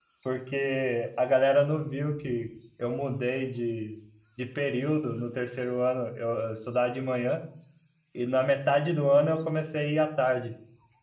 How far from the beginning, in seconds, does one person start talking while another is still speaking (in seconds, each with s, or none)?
none